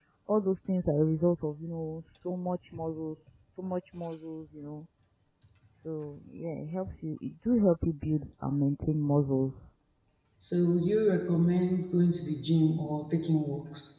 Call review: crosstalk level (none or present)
none